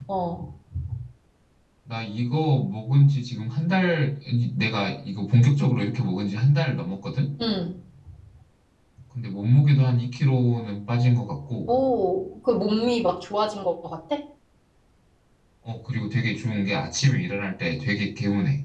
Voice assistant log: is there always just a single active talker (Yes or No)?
Yes